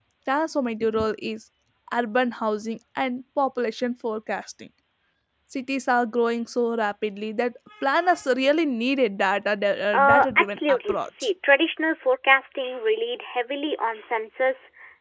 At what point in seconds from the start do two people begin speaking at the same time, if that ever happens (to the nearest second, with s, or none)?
10 s